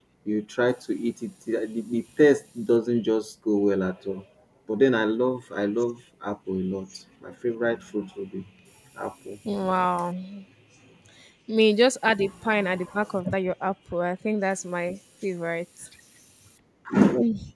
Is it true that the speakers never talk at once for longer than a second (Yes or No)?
Yes